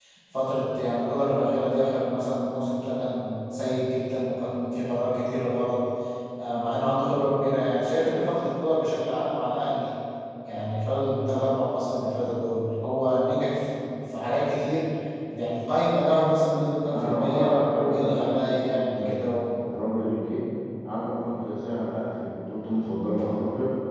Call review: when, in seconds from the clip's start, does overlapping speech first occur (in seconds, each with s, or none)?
16.9 s